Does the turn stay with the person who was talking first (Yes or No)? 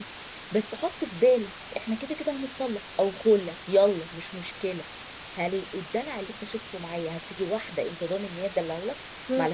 Yes